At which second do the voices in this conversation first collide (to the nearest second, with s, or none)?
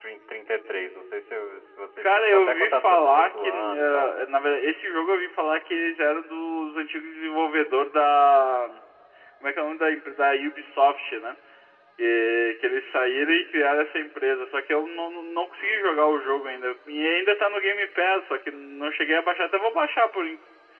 2 s